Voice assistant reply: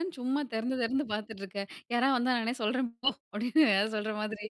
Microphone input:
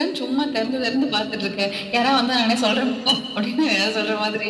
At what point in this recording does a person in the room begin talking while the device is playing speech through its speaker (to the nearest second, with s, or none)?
none